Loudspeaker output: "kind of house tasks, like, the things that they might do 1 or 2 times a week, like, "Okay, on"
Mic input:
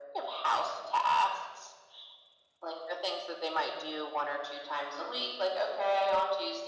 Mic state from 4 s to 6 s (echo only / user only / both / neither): echo only